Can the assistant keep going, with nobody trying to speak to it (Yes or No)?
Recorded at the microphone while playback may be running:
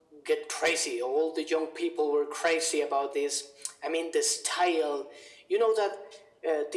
Yes